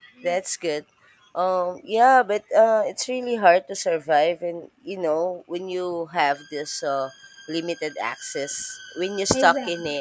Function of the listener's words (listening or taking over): listening